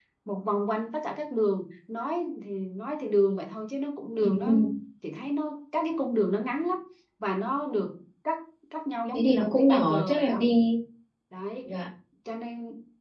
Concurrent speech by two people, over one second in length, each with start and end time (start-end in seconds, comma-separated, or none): 9.1-10.4